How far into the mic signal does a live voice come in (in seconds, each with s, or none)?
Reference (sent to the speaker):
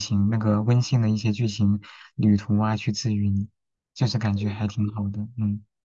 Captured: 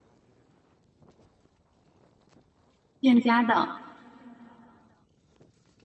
3.0 s